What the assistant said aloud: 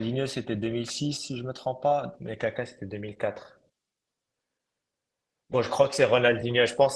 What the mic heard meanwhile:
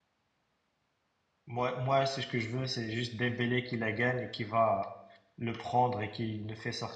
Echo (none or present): none